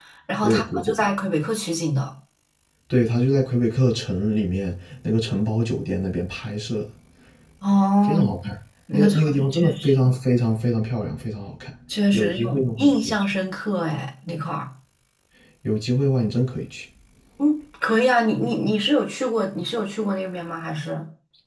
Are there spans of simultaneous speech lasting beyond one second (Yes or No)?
Yes